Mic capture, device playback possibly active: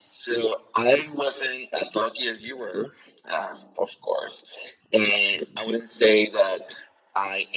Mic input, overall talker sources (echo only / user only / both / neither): echo only